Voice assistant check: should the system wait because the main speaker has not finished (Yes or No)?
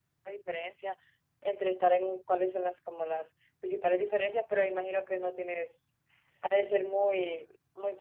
No